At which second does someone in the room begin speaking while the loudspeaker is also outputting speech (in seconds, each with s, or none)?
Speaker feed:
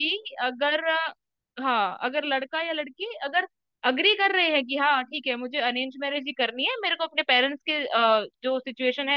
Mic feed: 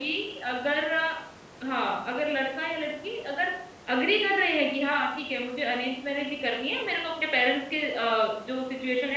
none